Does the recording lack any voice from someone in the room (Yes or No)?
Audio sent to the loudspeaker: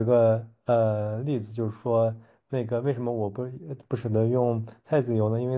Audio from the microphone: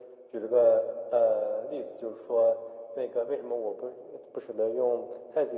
Yes